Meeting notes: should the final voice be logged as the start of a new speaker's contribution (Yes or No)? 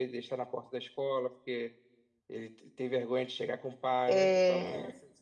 No